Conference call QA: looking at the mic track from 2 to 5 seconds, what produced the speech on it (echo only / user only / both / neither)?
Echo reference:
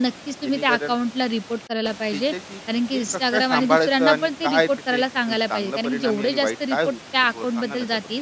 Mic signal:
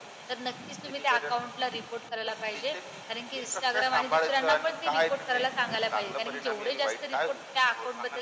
echo only